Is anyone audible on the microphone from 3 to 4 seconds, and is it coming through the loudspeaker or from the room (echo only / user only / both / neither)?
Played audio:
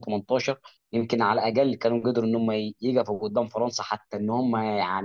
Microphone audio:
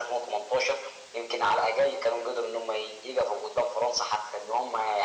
echo only